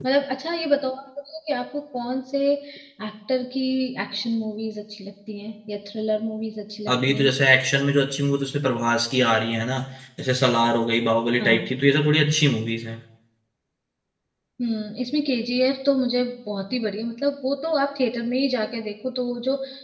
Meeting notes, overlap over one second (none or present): none